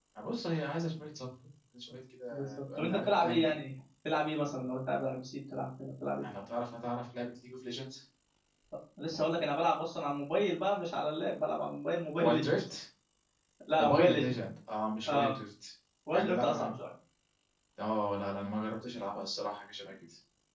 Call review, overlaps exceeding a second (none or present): present